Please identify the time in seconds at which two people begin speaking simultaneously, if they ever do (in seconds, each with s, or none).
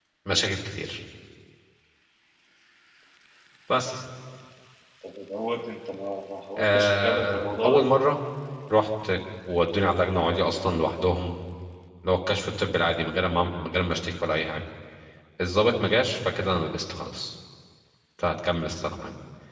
6.6 s